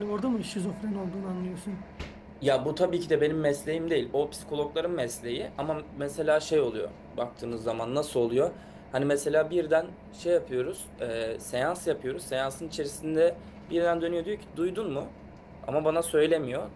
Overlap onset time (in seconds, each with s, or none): none